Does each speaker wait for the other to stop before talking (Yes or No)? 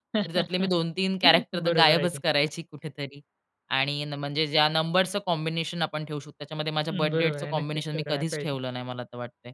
No